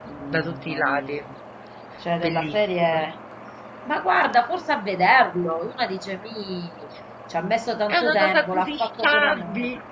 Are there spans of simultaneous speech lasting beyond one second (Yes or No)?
Yes